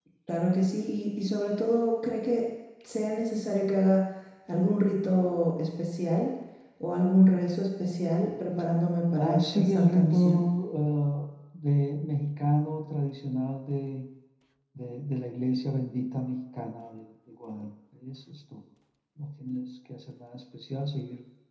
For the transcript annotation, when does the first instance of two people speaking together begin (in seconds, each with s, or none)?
9.2 s